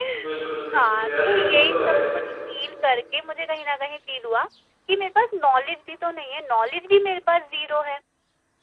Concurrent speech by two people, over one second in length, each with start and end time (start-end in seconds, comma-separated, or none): 0.8-1.9